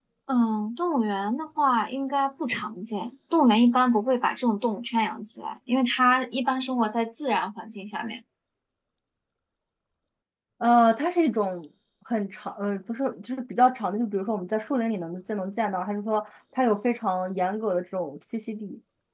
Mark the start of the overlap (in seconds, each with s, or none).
none